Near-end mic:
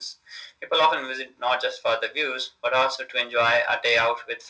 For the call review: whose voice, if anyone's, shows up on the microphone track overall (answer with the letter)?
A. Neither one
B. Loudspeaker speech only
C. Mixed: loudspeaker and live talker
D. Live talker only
B